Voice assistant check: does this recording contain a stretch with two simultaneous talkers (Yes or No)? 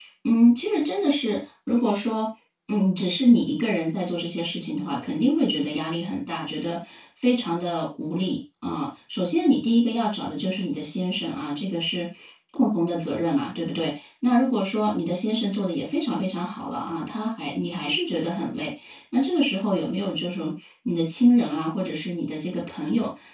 No